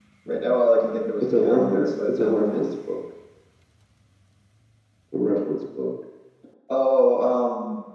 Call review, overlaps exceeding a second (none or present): present